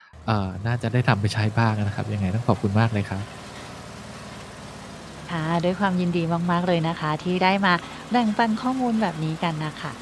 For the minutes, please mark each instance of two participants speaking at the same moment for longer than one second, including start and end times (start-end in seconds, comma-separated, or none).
none